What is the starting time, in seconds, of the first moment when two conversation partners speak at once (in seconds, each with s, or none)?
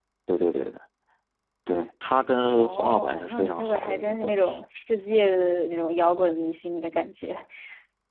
2.6 s